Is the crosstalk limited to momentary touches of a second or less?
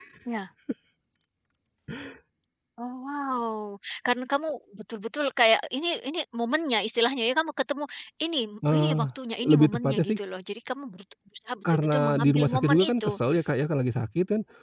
No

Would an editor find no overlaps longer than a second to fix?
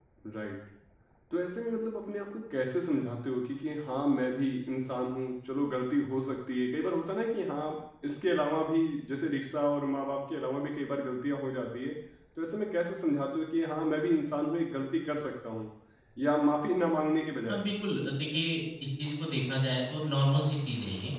Yes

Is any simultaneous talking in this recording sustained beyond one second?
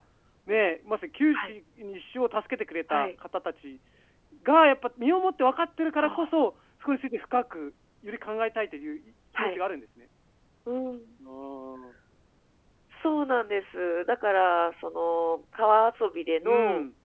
No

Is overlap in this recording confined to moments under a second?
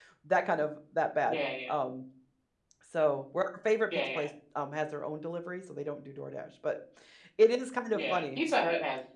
Yes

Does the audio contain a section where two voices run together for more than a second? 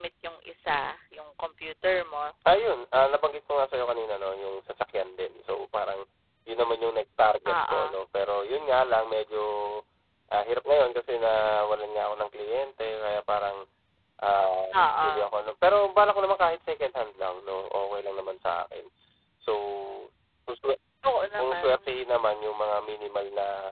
No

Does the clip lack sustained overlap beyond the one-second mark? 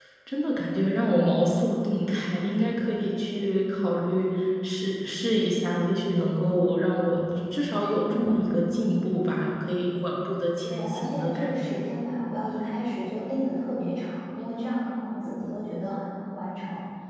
No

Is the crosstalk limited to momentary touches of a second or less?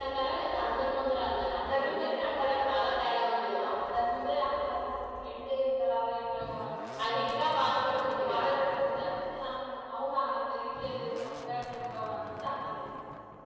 No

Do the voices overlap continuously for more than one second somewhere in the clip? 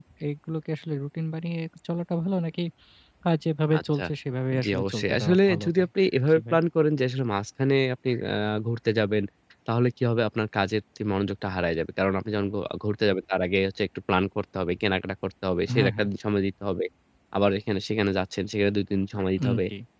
Yes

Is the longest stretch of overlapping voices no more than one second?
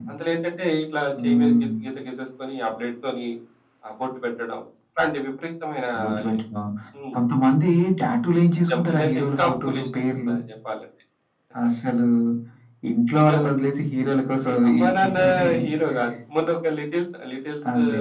No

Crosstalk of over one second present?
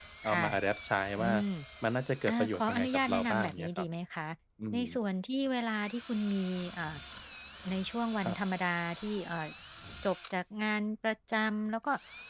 Yes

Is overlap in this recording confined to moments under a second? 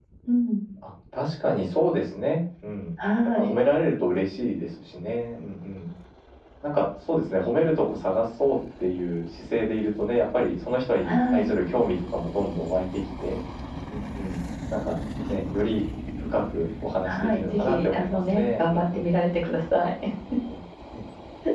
No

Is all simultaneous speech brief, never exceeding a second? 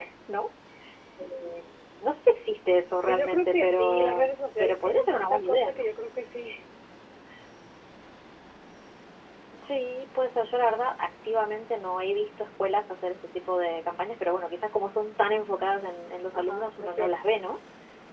No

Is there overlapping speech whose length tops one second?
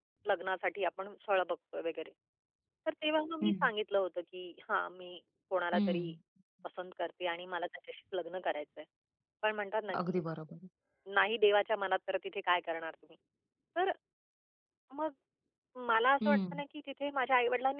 No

